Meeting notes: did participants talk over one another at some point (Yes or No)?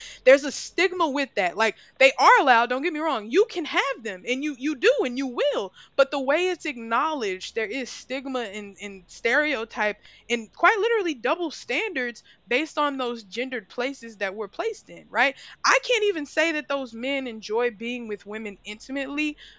No